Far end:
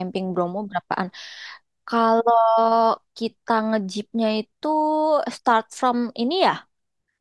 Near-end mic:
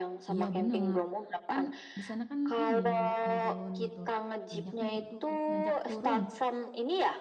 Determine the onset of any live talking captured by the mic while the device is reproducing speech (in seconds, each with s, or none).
0.3 s